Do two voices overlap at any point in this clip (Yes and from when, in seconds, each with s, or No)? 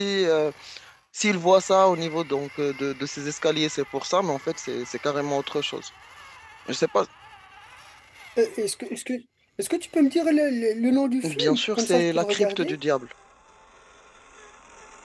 Yes, from 11.2 s